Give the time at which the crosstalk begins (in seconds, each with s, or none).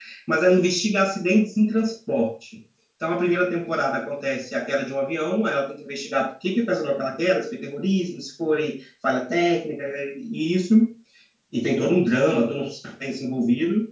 none